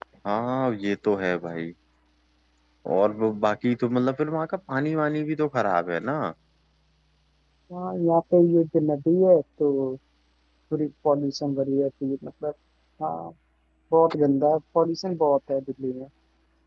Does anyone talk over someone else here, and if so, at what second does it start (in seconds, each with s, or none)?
none